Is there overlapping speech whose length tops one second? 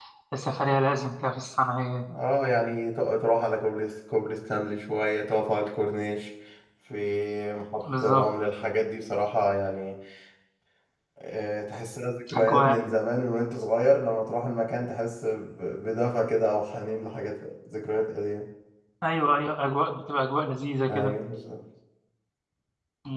No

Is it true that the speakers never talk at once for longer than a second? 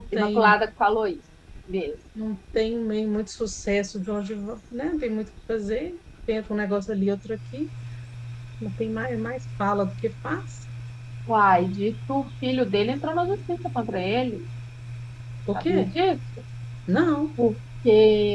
Yes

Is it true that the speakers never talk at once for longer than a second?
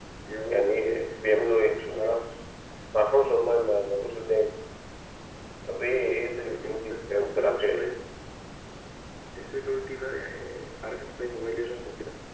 No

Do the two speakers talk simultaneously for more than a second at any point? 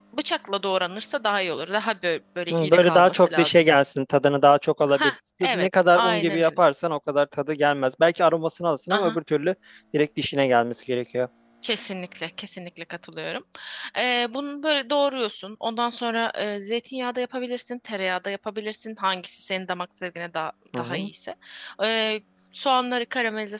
Yes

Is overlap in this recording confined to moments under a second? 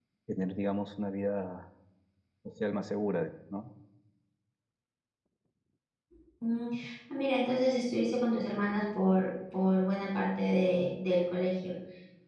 Yes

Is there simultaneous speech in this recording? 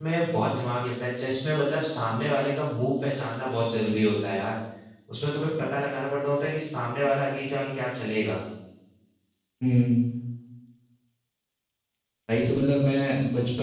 No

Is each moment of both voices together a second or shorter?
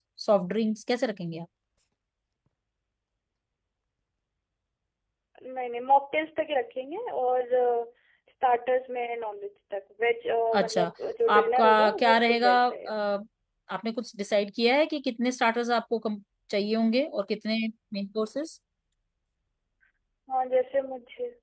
No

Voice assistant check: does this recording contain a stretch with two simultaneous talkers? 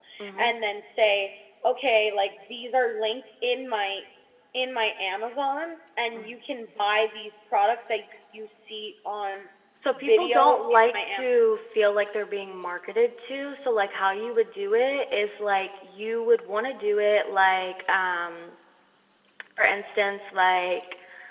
Yes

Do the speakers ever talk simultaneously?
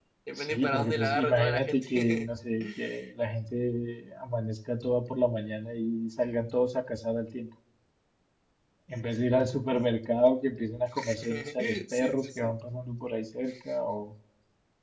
Yes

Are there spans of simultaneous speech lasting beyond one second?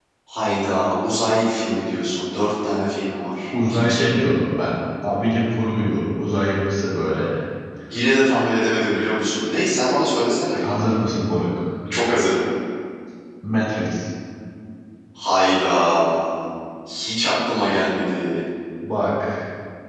No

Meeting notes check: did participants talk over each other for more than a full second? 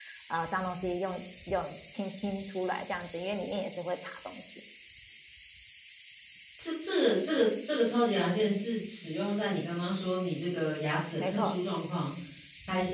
No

